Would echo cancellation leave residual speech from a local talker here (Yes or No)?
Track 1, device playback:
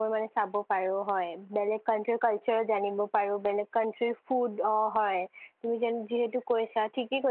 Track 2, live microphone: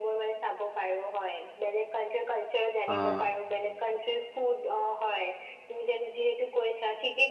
Yes